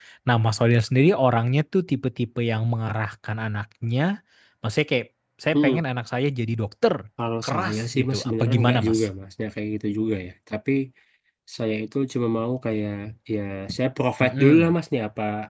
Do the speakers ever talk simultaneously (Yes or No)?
Yes